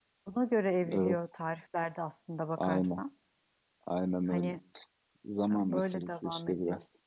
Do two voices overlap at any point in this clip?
Yes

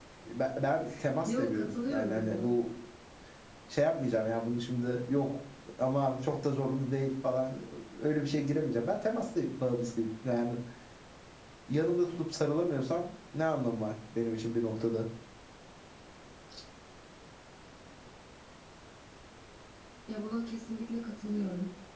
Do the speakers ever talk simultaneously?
Yes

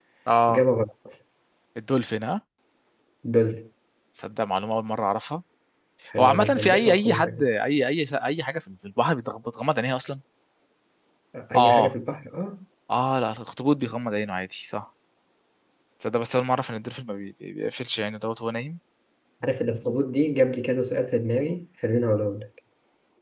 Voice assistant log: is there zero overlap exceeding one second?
No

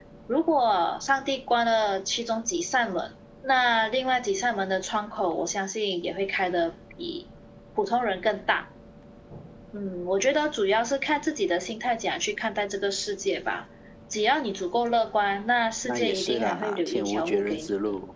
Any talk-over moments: Yes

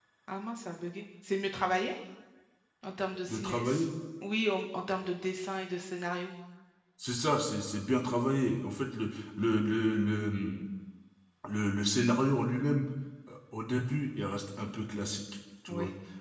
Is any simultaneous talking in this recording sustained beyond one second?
No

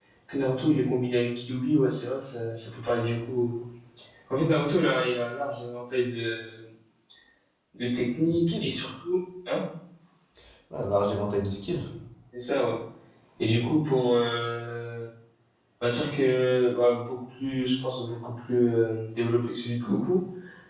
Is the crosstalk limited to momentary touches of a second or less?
Yes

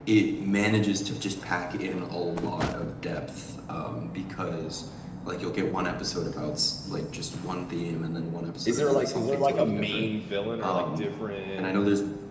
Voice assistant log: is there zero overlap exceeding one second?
No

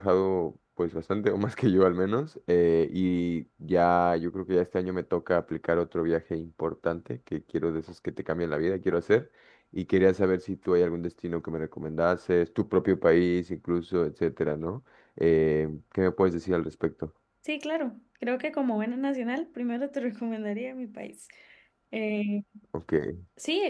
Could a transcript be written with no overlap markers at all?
Yes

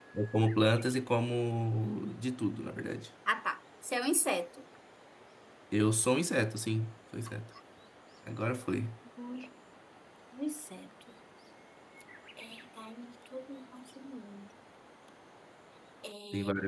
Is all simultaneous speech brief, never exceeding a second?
Yes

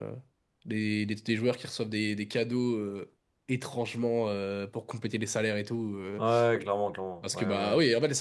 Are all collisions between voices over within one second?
Yes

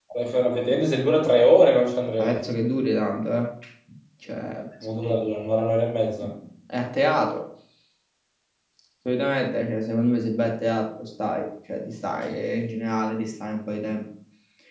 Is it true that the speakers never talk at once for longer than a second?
Yes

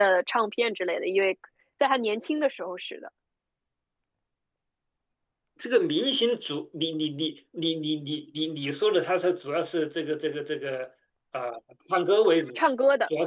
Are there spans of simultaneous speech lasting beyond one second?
No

